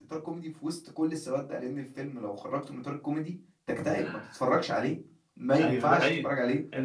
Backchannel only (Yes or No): No